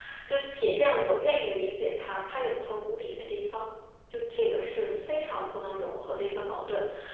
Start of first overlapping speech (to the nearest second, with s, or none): none